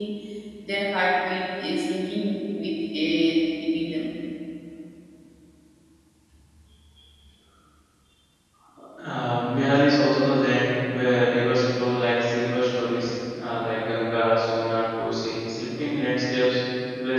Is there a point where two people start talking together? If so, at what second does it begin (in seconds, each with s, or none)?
none